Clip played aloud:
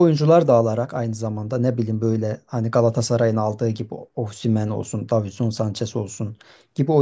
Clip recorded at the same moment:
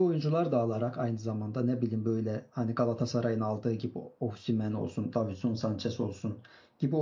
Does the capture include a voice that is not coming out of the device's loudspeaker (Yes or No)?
No